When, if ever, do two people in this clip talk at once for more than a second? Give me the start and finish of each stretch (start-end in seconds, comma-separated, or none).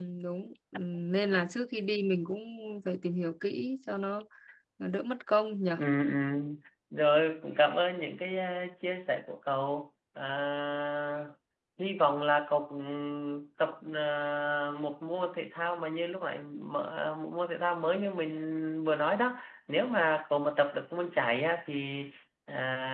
none